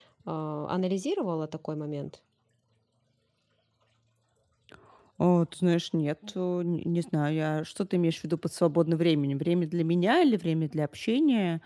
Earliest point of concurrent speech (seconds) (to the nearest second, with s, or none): none